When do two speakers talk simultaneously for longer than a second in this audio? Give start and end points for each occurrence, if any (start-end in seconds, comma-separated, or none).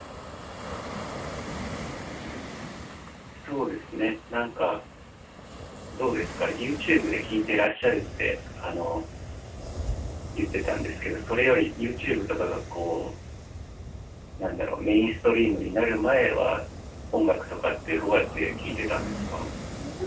17.9-19.3